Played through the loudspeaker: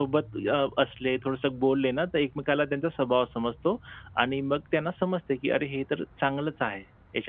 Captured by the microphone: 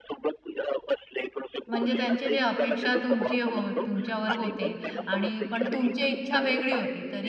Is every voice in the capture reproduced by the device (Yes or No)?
No